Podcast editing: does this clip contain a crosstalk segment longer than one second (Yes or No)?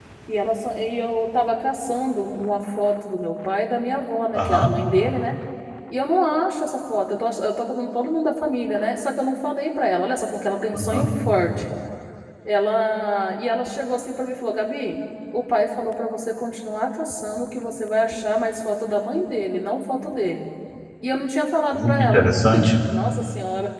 No